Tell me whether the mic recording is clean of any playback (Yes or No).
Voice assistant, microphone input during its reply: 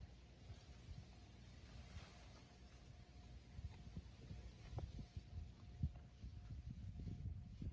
Yes